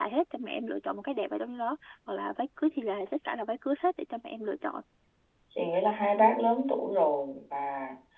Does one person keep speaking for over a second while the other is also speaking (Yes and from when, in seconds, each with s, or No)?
No